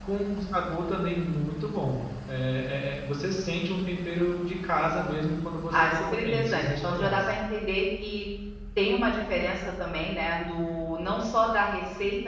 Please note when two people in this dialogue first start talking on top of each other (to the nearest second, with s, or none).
6 s